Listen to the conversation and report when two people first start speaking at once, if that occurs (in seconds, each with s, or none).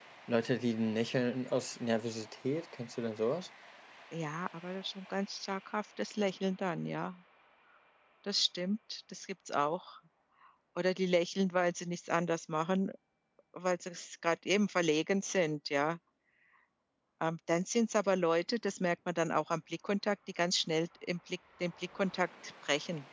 none